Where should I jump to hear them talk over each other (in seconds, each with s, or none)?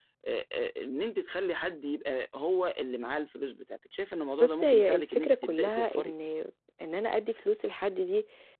4.4 s